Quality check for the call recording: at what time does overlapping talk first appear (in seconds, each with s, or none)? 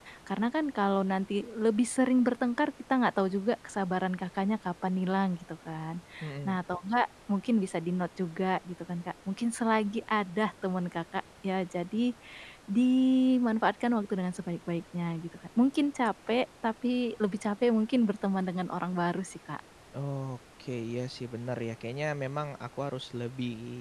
none